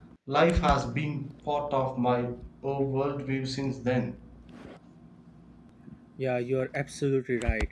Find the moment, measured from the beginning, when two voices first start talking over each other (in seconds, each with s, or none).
none